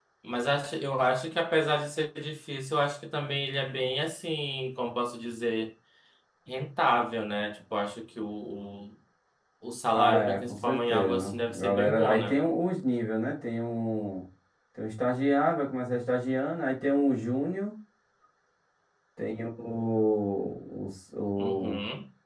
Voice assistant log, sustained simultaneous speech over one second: present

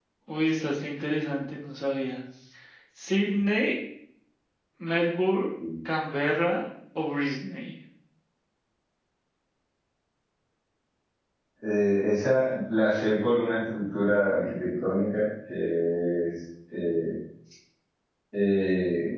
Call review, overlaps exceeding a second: none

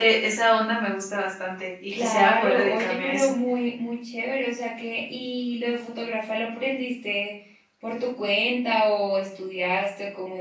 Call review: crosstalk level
present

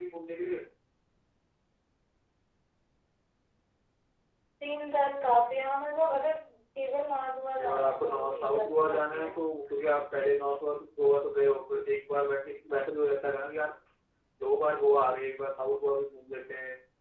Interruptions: present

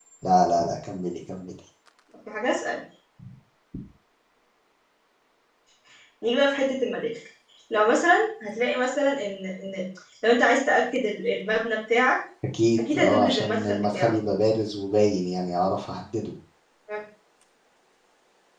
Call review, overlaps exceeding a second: present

